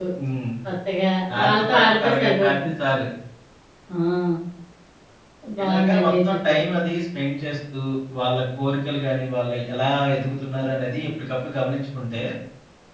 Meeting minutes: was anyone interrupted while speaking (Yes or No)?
Yes